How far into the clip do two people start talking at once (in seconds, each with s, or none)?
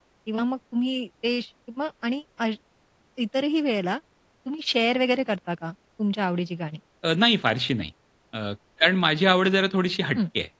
none